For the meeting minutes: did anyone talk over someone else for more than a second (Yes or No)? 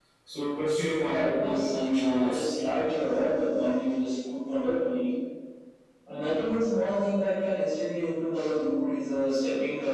Yes